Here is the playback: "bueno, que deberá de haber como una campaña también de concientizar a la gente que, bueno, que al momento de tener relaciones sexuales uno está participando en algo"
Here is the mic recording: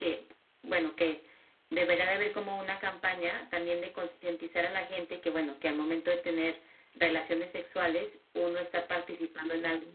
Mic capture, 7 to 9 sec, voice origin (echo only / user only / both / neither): echo only